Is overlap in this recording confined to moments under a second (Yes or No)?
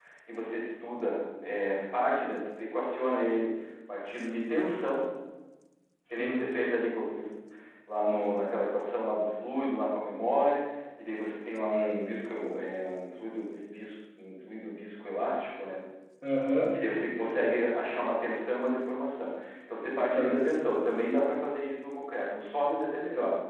Yes